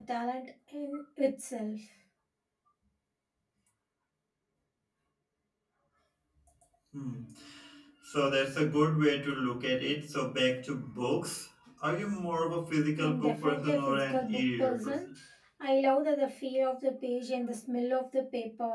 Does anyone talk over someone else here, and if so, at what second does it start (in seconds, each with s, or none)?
13.0 s